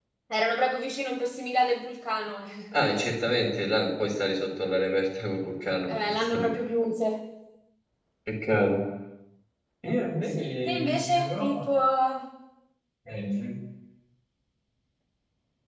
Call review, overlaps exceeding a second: present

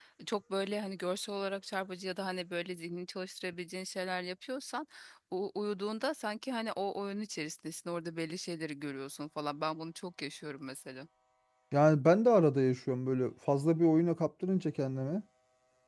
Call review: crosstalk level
none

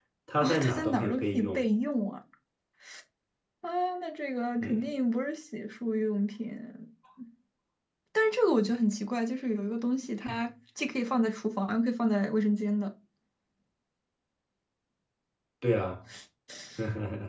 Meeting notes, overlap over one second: present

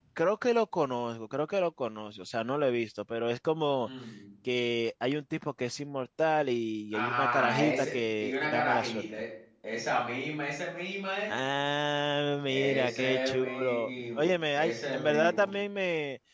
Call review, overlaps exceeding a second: present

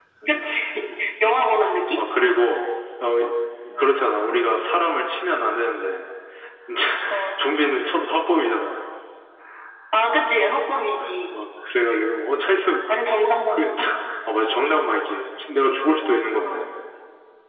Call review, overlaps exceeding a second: none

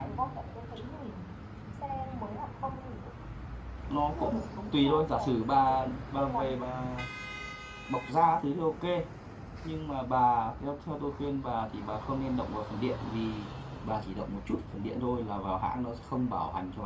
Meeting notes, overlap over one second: present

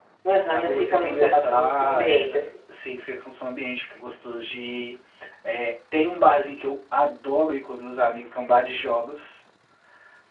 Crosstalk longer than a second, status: present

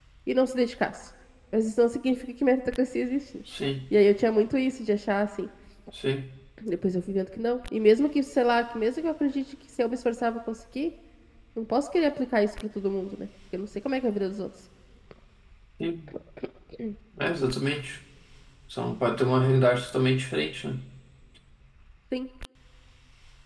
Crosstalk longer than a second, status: none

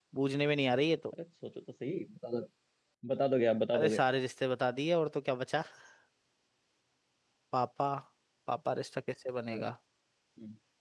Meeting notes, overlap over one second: none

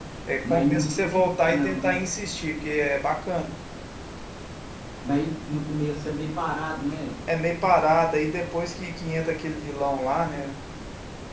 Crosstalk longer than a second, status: present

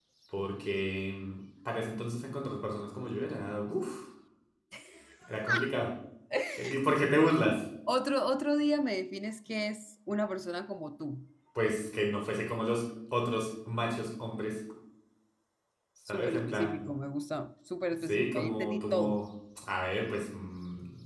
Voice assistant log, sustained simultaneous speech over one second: present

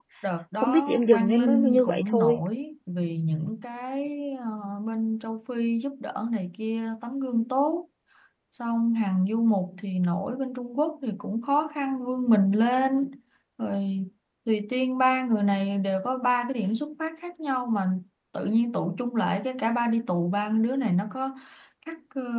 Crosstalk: present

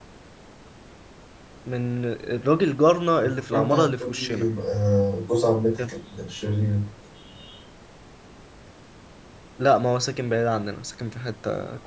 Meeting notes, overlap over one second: present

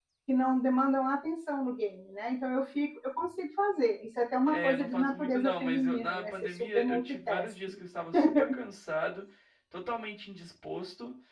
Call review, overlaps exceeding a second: present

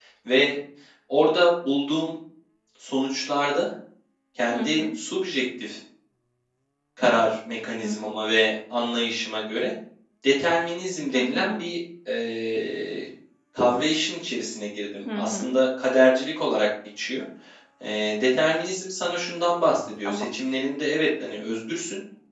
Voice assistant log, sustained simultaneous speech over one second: none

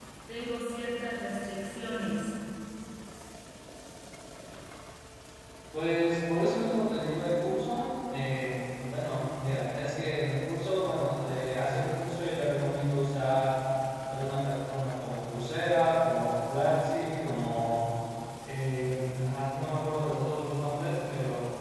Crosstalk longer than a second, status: none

